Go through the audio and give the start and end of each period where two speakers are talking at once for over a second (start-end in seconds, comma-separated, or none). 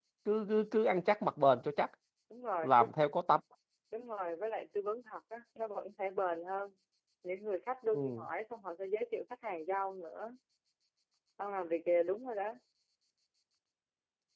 none